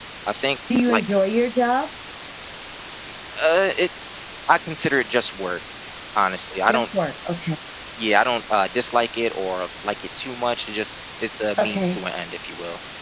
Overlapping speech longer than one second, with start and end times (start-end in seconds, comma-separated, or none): none